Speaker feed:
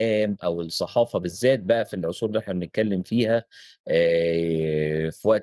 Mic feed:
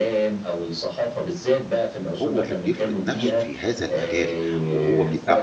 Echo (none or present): present